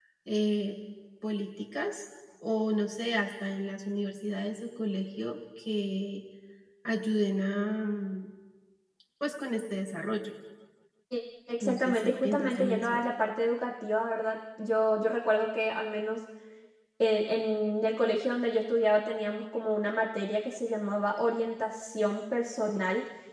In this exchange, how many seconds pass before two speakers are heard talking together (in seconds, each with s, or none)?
11.6 s